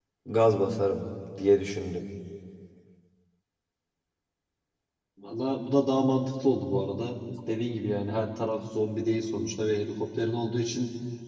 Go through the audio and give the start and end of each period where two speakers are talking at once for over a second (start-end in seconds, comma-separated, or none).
none